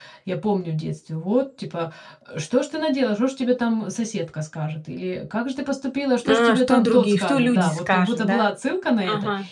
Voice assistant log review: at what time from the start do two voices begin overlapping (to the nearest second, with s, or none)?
6 s